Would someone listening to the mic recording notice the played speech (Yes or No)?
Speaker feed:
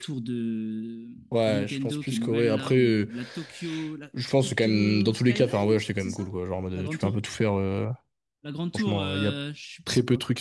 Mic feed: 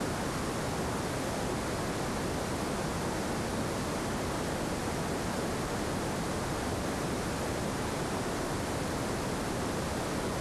No